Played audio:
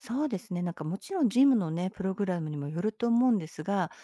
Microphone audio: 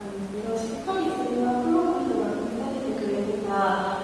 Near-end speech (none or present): present